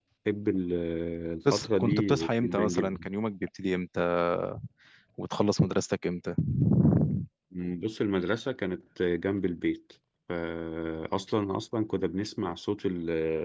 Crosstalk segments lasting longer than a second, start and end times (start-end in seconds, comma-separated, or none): 1.5-2.9